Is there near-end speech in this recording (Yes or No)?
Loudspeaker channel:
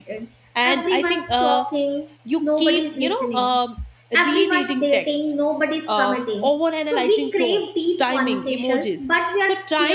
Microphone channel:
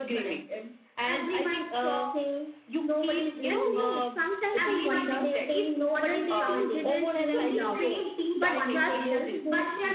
Yes